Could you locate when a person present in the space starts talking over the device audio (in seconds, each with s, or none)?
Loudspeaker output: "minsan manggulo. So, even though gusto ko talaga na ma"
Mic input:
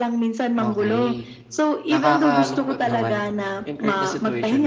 0.6 s